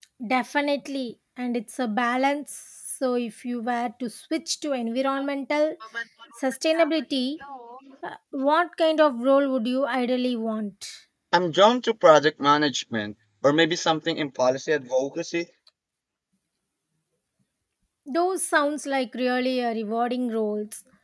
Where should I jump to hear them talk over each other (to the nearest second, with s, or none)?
none